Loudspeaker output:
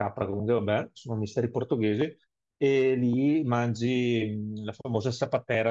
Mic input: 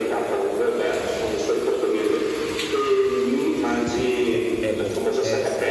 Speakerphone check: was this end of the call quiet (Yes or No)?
No